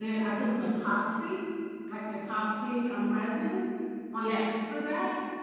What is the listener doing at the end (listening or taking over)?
listening